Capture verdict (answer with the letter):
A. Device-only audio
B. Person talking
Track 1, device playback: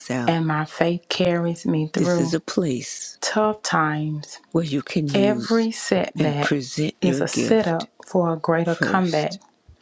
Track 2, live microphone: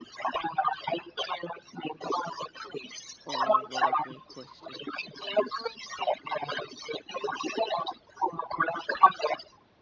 B